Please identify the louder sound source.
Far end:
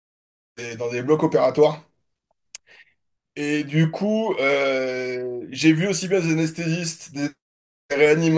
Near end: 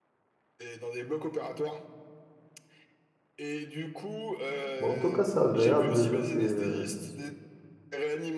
user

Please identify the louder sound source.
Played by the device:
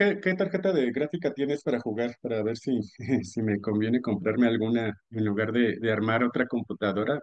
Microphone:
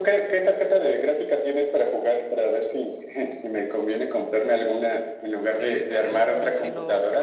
echo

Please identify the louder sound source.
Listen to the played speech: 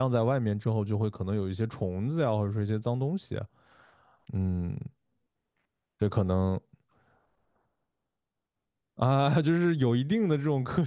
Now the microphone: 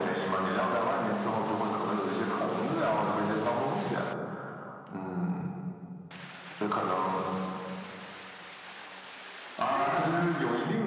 echo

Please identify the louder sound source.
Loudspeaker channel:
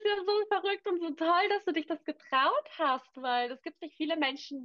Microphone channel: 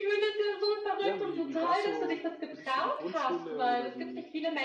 echo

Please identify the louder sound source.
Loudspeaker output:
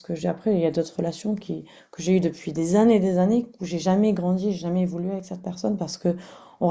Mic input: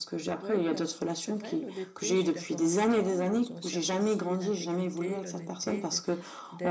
echo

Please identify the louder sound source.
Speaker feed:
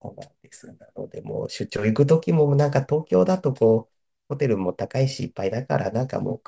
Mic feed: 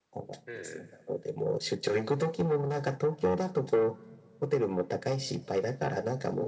echo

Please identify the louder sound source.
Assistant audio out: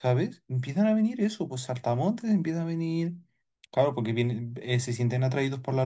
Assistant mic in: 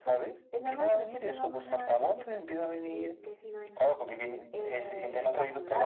echo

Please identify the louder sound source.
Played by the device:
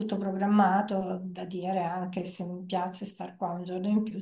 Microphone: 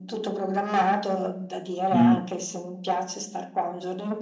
user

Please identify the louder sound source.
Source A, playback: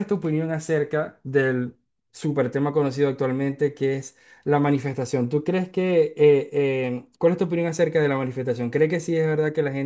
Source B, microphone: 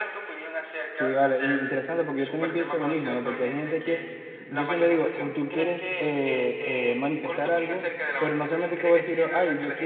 user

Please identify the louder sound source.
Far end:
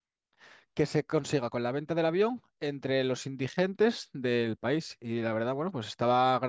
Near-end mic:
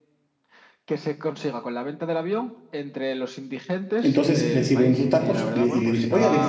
user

